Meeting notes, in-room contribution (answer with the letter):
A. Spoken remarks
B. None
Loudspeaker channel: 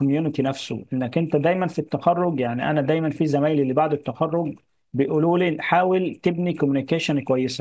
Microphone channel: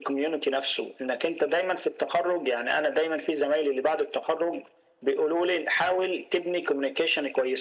B